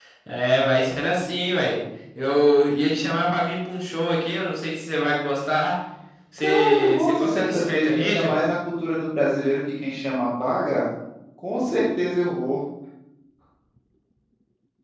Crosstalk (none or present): present